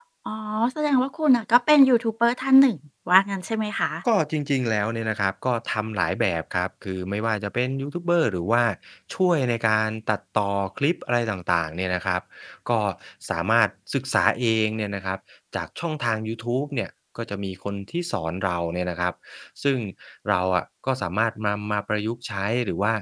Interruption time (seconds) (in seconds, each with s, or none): none